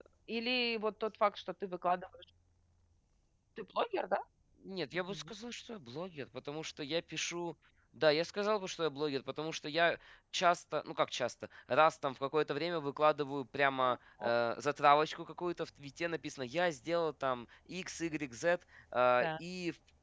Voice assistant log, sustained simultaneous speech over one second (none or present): none